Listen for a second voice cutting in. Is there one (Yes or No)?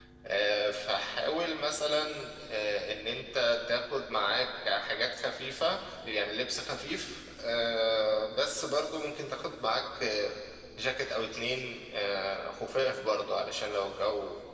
No